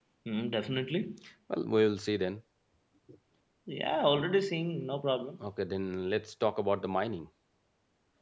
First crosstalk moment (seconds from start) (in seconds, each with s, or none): none